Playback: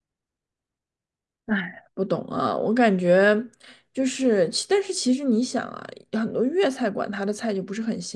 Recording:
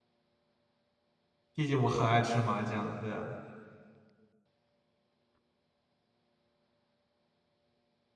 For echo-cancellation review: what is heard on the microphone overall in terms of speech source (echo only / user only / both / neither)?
user only